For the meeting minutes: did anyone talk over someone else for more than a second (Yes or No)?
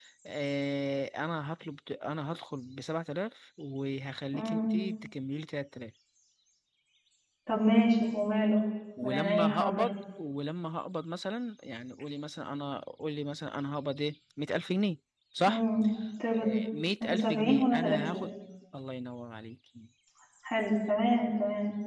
Yes